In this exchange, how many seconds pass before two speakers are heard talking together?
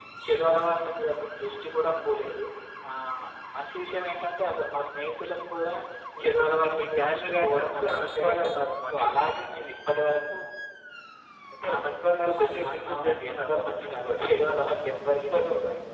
6.2 s

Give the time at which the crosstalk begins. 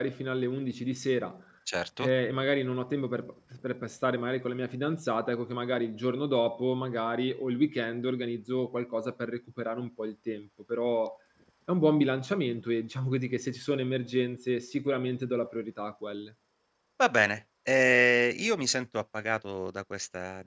none

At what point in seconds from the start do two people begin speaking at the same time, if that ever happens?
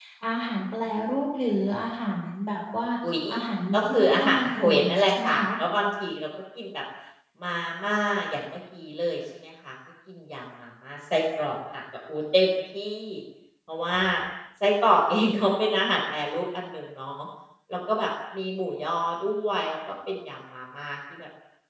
3.7 s

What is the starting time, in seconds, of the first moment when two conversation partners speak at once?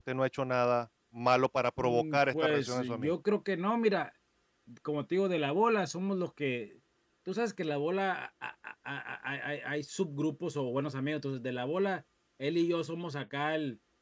1.8 s

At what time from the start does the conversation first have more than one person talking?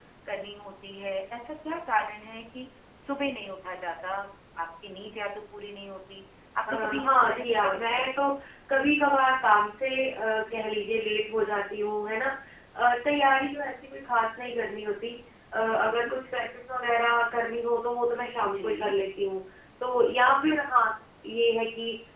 6.7 s

